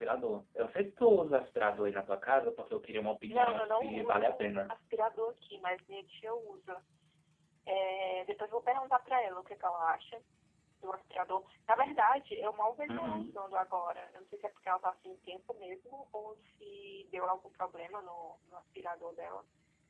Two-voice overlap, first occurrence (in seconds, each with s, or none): 3.3 s